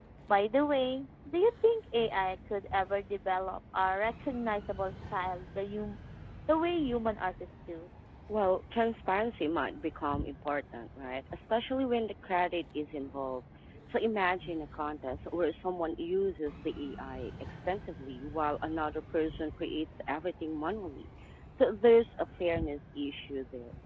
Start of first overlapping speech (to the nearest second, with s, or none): none